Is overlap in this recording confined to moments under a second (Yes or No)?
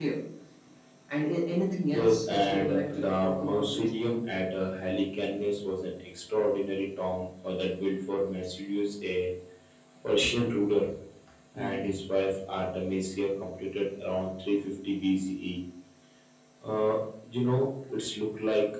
No